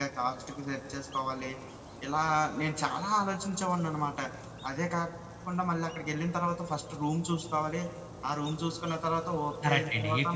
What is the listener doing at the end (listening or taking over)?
taking over